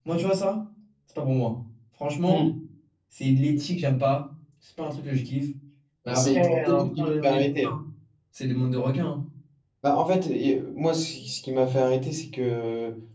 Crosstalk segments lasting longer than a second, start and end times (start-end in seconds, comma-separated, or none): 6.1-7.4